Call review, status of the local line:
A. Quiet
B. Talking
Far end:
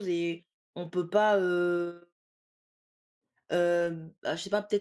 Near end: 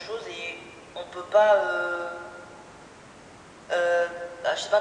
A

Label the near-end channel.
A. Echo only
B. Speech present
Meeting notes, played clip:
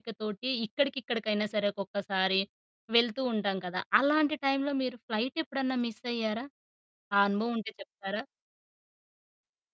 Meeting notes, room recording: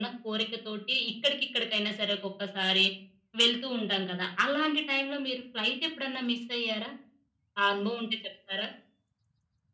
A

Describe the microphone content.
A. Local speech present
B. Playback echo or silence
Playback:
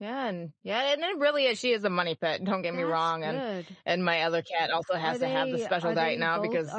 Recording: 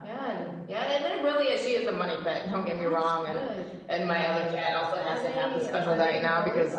B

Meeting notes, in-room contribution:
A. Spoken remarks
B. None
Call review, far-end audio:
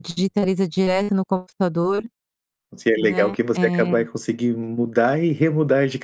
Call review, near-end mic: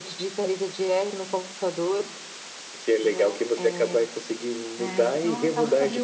A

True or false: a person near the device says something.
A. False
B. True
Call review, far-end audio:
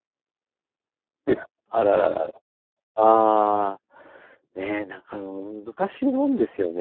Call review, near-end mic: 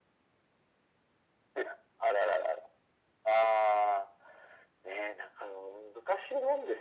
A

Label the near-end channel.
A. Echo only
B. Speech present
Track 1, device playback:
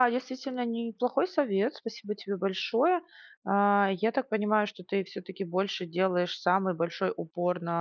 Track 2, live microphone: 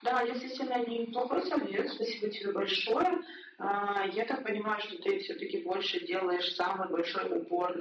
A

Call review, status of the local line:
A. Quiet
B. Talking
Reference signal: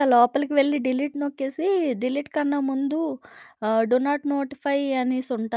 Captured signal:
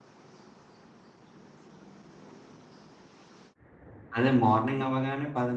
B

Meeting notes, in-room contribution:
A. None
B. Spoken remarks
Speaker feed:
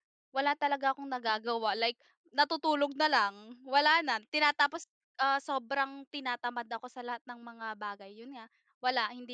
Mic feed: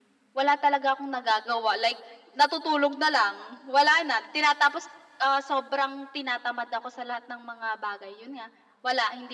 A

